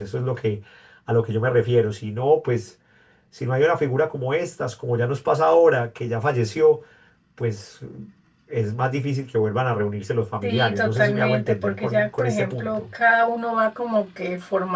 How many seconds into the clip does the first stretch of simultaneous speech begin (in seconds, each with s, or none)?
10.4 s